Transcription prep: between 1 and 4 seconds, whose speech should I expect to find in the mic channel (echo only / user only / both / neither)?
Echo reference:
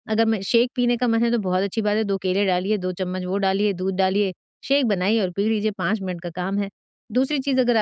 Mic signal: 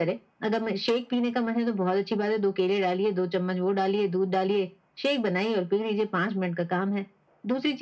echo only